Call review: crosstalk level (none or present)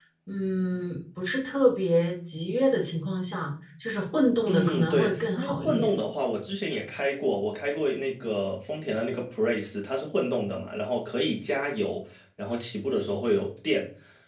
present